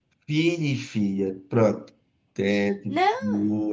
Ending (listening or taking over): listening